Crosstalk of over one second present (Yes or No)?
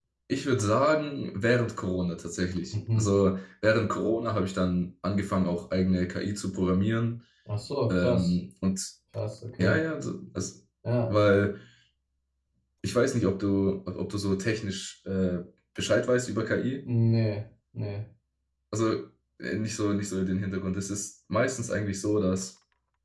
No